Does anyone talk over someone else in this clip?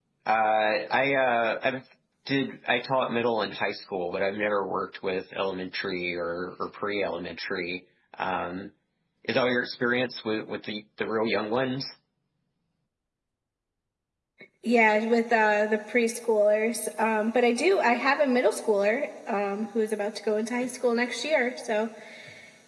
No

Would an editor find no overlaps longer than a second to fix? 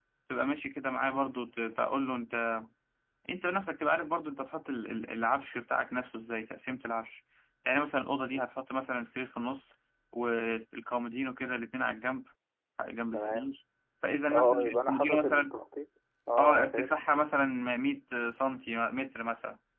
No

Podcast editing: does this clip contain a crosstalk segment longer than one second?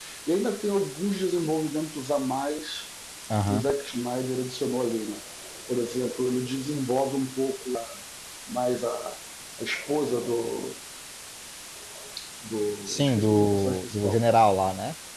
Yes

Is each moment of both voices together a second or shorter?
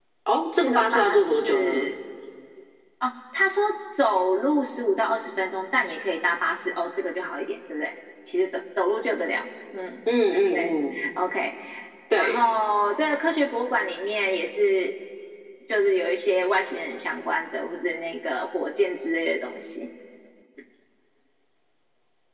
No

